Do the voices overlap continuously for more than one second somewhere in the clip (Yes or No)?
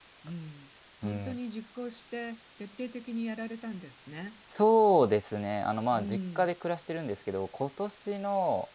No